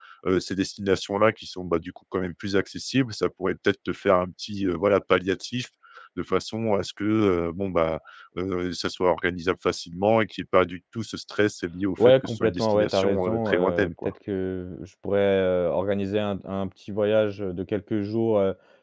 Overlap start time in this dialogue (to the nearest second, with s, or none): 12 s